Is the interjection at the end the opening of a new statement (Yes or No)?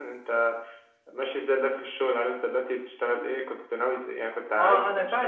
Yes